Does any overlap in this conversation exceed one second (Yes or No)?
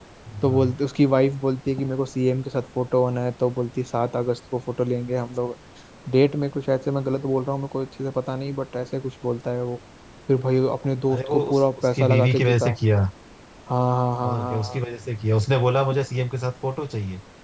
Yes